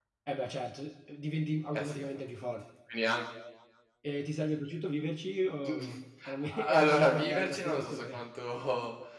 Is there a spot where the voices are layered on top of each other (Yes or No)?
Yes